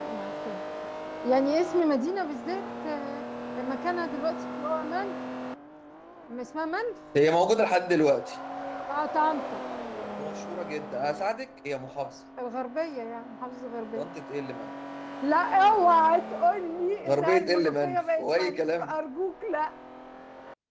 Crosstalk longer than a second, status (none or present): present